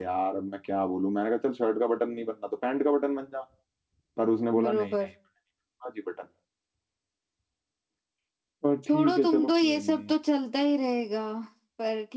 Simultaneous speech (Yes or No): Yes